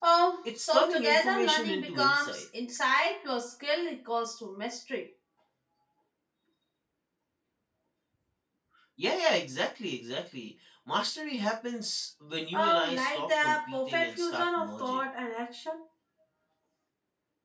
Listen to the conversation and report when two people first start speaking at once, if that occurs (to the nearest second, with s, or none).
1 s